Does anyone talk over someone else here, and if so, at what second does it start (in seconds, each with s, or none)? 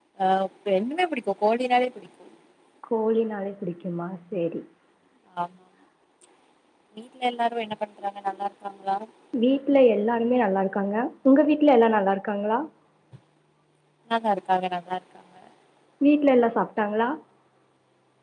none